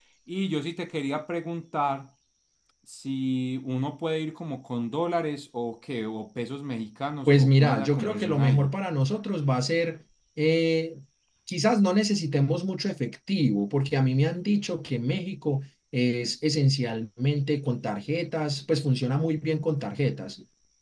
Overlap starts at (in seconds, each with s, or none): 7.3 s